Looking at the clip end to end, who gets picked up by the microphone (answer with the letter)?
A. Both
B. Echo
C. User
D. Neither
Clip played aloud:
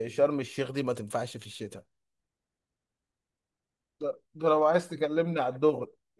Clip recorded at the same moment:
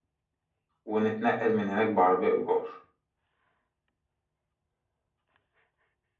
C